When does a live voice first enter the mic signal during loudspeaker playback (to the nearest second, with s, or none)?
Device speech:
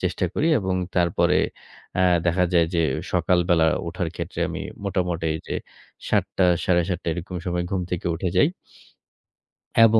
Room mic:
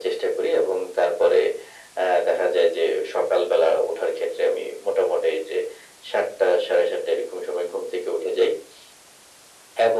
none